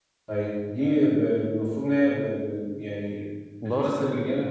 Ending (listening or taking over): listening